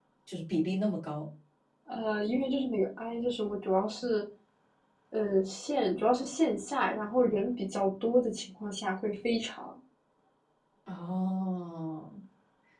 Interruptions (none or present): none